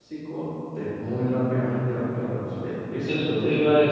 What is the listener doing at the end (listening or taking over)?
taking over